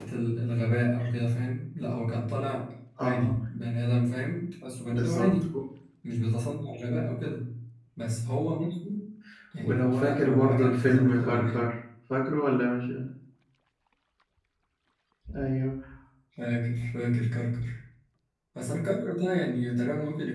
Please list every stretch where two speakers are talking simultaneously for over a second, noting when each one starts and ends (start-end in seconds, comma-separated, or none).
9.6-11.6